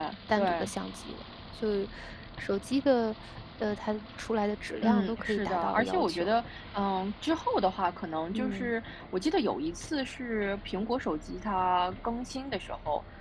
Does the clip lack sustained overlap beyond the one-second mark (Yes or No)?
No